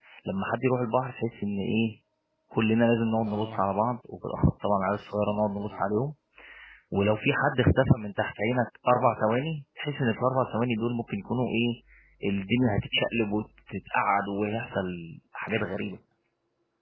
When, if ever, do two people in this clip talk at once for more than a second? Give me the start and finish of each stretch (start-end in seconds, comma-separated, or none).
none